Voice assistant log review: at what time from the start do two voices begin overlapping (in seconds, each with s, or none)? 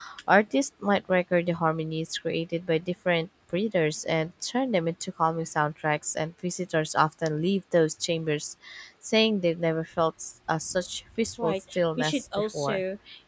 11.3 s